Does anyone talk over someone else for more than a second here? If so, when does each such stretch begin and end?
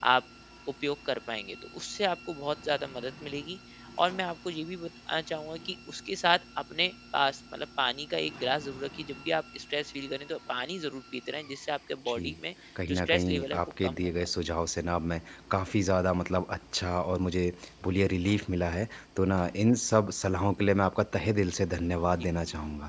12.9-14.1

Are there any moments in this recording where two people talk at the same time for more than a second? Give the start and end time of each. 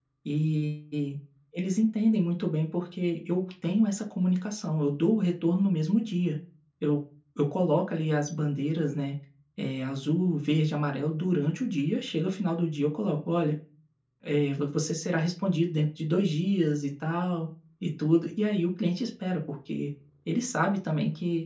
none

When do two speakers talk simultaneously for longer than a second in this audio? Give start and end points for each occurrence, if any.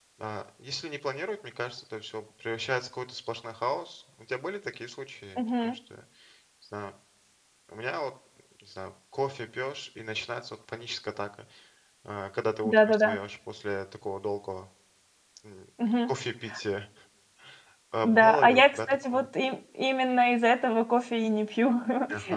18.0-19.2

